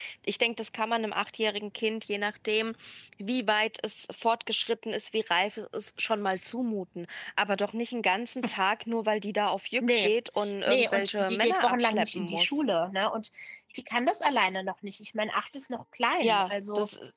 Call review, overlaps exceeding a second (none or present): present